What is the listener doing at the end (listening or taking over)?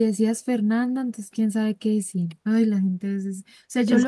listening